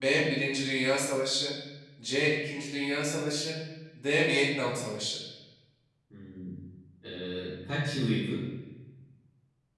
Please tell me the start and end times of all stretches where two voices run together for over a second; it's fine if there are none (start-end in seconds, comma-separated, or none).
none